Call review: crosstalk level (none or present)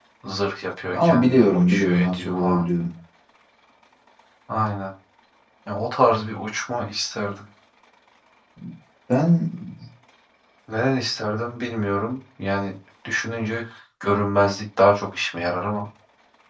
present